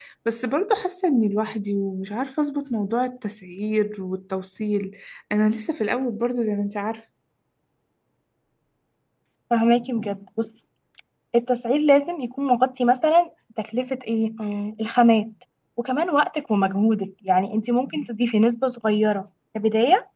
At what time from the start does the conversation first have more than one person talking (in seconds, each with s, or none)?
none